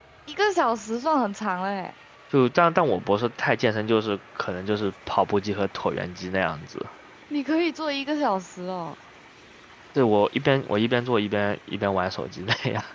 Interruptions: none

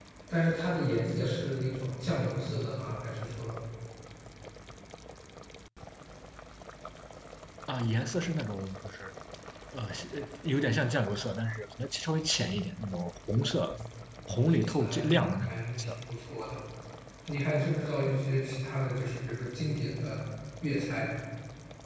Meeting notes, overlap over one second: present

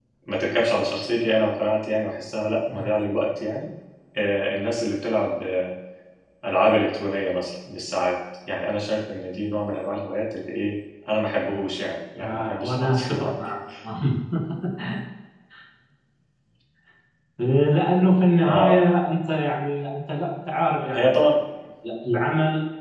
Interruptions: present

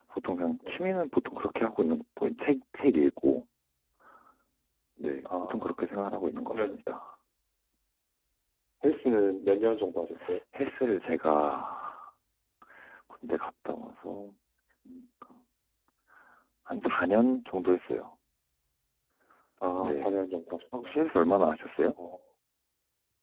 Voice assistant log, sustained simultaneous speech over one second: none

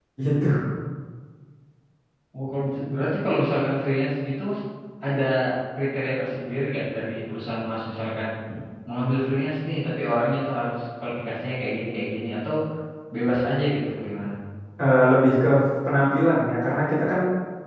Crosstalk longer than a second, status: none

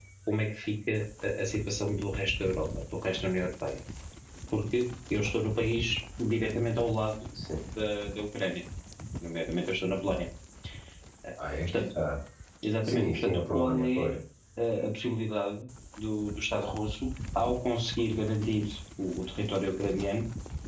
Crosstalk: present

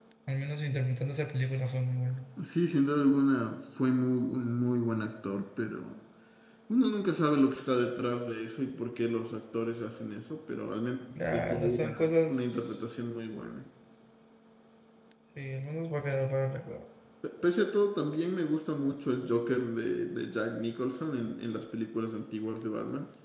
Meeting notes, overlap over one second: present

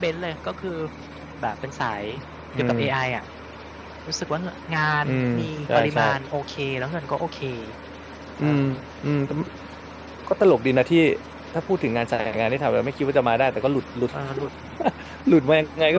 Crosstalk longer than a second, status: none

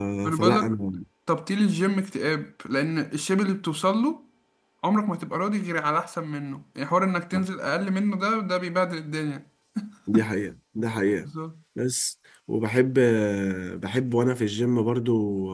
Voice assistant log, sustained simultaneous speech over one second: none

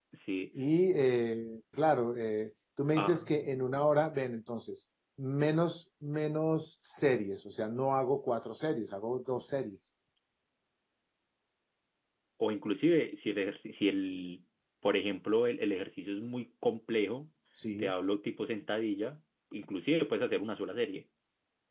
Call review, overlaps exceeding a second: none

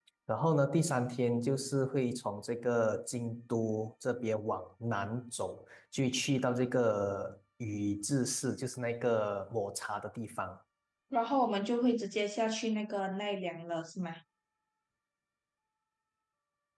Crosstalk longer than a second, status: none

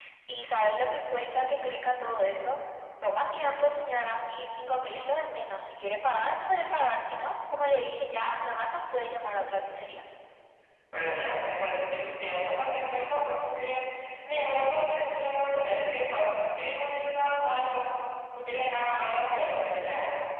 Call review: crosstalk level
none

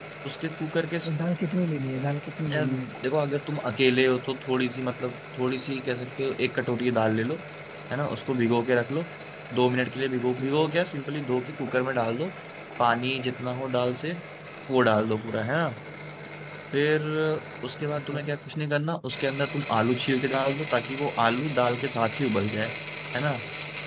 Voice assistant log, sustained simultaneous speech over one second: none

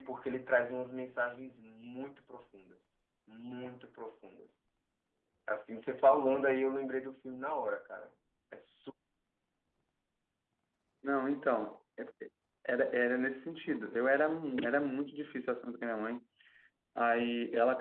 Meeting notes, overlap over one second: none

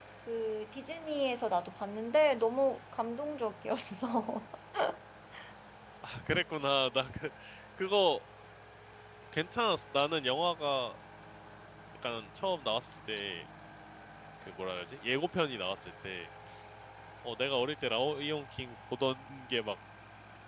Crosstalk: none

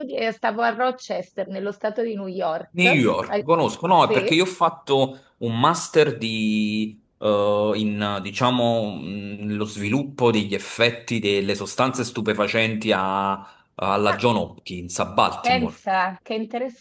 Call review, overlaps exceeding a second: none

